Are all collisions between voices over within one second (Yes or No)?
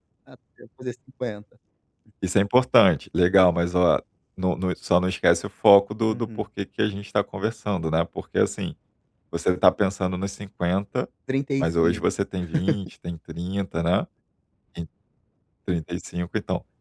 Yes